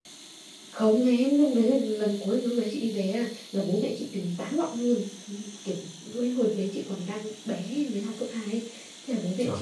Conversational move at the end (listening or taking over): listening